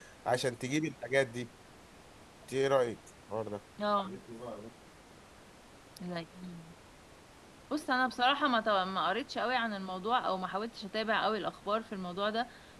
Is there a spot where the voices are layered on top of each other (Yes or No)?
No